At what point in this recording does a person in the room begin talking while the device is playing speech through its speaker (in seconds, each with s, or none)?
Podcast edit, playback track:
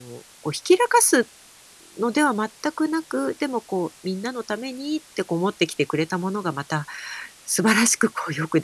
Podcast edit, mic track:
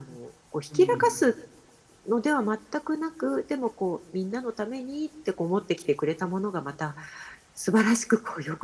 0.7 s